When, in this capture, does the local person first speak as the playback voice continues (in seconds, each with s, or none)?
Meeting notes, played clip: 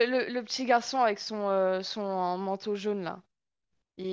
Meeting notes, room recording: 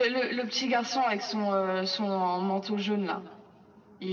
none